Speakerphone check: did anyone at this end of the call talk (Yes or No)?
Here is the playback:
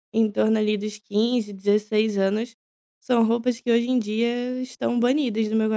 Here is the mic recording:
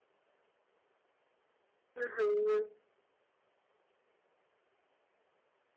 Yes